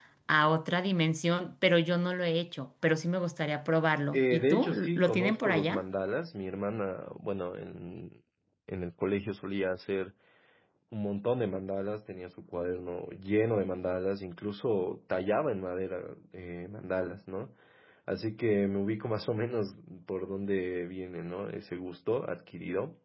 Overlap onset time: 4.1 s

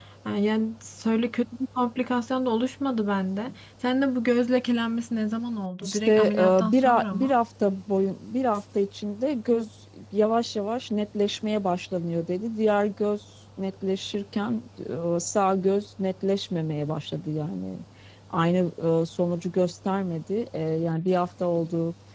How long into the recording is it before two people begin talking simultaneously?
5.8 s

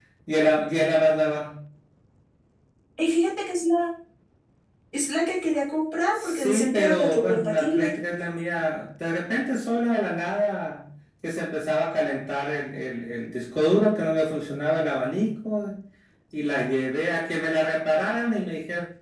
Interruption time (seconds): 6.1 s

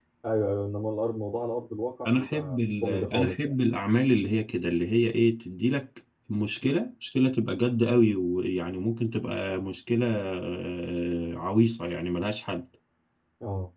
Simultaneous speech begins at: 2.0 s

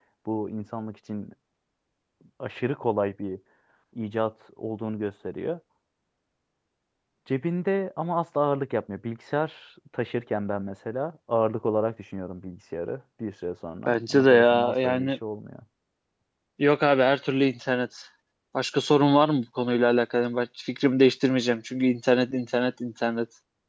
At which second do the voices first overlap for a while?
13.9 s

